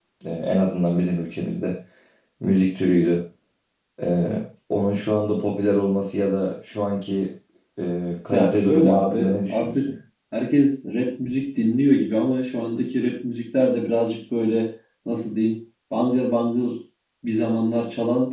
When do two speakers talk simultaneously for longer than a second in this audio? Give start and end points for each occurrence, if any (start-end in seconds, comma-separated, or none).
8.3-9.9